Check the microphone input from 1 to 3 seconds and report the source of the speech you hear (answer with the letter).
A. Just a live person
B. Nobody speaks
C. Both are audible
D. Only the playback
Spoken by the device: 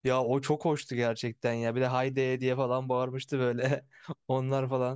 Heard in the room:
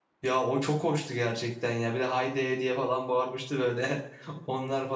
D